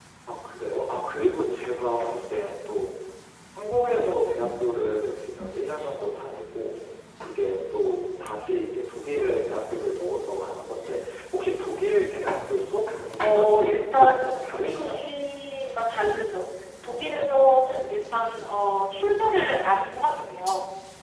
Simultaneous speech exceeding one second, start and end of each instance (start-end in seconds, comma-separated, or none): 13.2-15.0